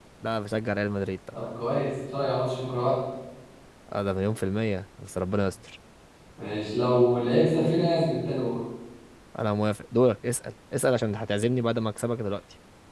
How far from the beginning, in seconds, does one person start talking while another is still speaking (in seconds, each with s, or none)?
none